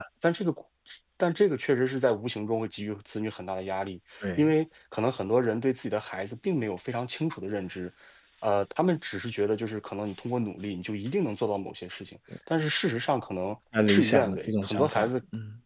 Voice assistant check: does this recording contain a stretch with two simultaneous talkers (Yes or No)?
Yes